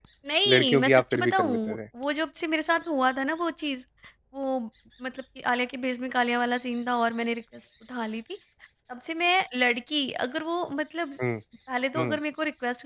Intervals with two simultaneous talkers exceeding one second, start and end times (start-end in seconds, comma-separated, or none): 0.5-1.8